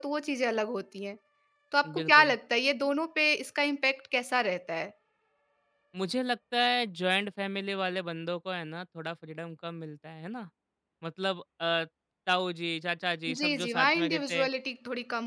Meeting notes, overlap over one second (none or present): present